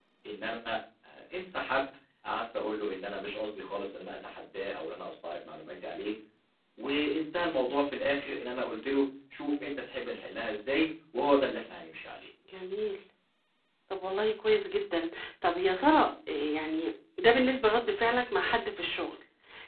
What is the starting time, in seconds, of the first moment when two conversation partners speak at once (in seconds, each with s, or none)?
none